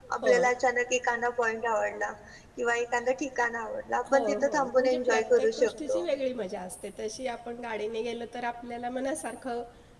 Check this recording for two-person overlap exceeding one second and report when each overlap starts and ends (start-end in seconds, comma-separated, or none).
4.1-6.0